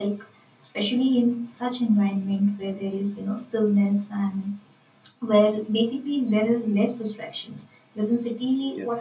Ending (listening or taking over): listening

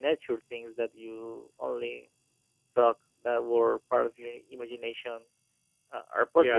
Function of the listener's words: taking over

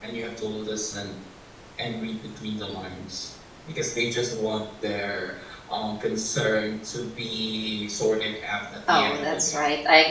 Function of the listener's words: taking over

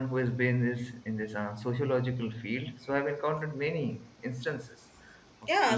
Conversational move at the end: taking over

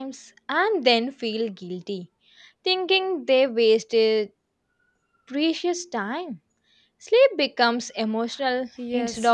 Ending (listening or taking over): taking over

